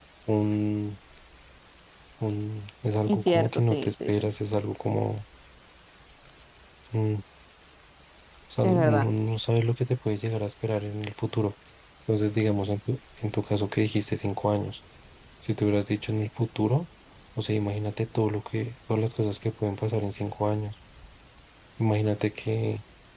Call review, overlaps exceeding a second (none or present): present